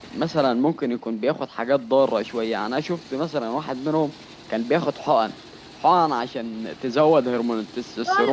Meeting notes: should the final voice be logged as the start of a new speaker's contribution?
Yes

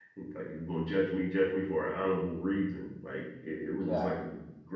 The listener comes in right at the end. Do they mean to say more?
No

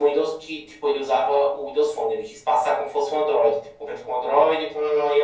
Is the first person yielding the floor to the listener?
Yes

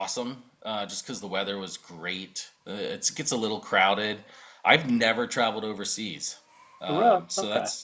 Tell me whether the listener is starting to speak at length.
No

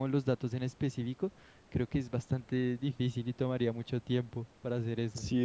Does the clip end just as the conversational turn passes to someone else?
Yes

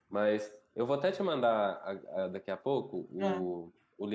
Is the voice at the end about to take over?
No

